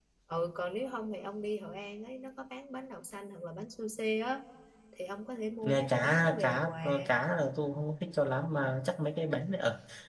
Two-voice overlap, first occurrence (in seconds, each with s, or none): 5.6 s